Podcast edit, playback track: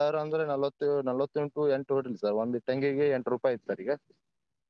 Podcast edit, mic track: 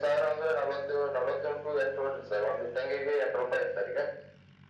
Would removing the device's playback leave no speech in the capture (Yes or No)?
Yes